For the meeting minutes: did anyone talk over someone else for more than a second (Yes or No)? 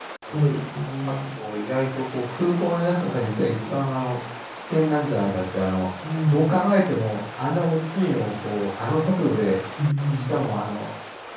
No